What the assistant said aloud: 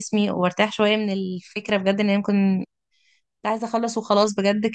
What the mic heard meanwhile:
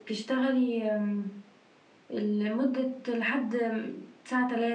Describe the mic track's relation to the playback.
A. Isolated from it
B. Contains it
A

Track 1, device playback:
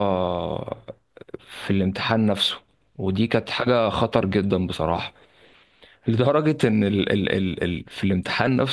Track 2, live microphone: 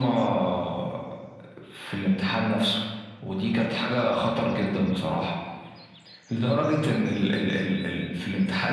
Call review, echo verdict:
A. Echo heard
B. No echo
A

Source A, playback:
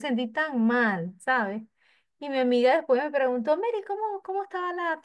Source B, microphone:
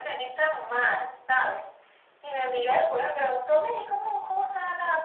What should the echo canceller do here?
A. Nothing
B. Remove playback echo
B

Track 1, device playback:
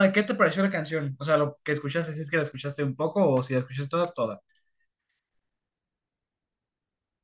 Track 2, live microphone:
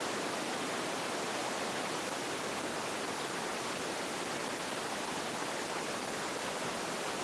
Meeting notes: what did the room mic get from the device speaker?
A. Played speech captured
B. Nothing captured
B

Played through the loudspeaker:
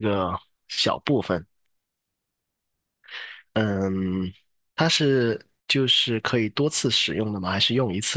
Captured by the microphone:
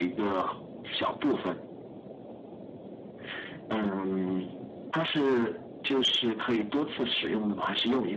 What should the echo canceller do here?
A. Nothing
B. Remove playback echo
B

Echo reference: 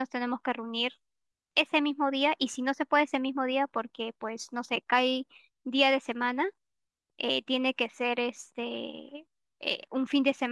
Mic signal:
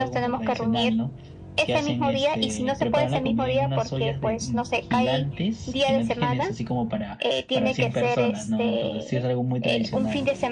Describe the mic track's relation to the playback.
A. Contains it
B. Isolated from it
A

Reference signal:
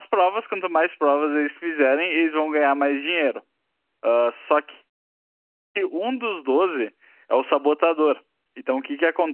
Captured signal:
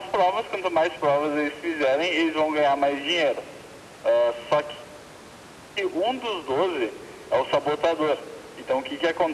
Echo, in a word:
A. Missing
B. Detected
B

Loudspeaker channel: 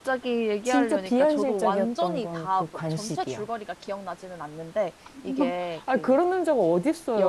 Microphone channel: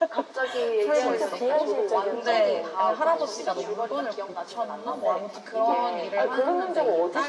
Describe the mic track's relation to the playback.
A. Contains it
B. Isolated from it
A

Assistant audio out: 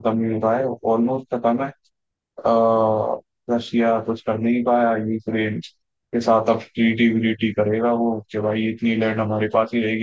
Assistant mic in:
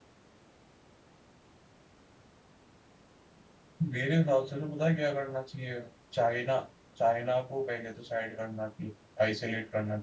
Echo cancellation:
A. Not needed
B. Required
A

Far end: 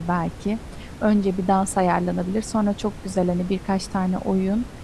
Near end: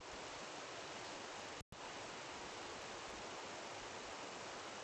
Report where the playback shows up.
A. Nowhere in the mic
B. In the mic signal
A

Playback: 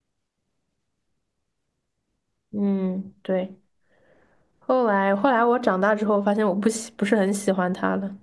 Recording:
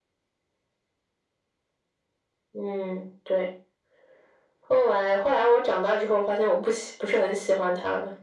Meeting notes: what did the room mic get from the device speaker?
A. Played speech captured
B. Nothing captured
A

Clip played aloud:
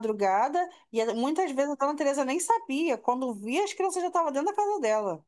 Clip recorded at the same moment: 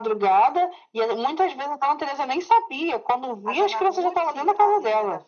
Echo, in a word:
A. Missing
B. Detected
B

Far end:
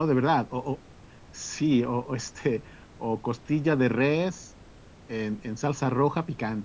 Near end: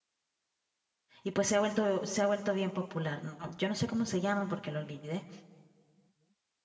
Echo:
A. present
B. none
B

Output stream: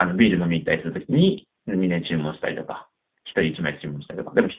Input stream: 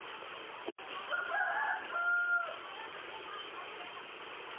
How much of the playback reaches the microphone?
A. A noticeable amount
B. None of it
B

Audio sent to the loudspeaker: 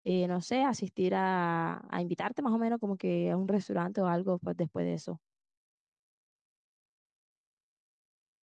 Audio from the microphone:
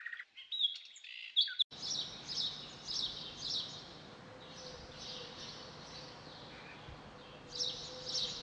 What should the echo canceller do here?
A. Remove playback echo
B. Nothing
B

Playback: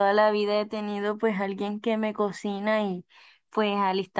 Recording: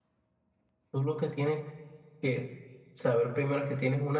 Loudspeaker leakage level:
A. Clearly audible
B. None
B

